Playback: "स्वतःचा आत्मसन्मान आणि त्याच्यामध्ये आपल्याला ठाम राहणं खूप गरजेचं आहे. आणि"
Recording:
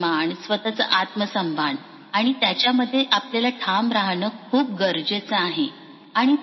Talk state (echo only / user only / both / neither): echo only